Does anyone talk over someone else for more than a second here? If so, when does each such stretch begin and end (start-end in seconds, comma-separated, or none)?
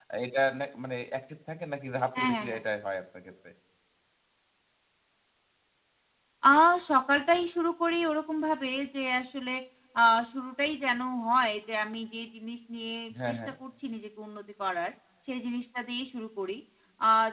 none